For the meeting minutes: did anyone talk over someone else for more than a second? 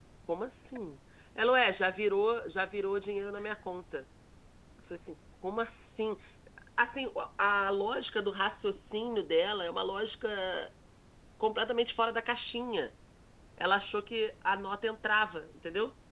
No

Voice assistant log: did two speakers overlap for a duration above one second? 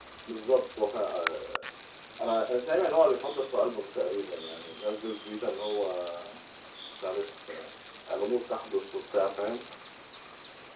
No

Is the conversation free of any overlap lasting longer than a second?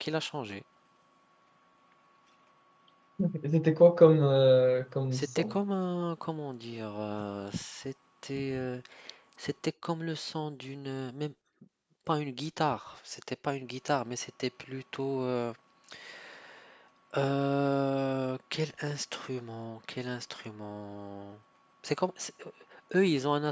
Yes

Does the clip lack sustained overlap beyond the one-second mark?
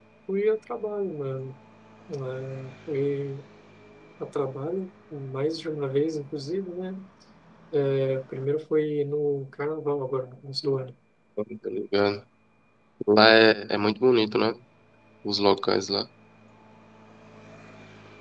Yes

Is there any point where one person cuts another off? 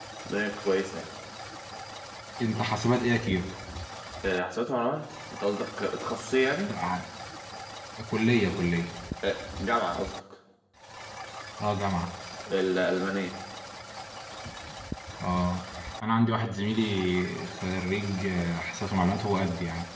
No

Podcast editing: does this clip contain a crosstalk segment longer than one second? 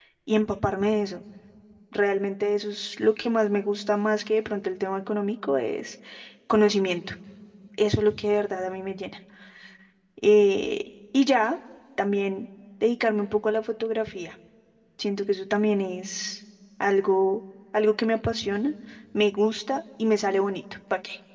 No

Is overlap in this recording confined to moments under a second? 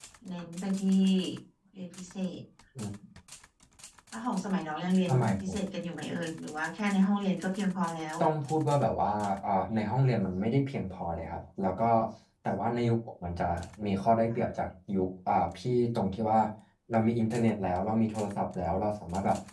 Yes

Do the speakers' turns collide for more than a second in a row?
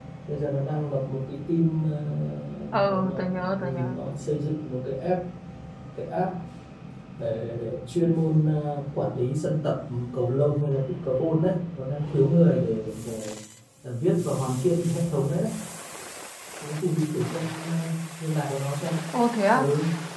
Yes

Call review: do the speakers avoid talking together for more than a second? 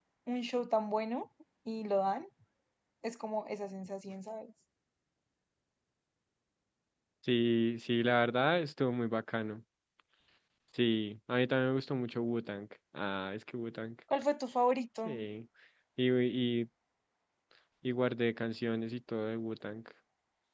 Yes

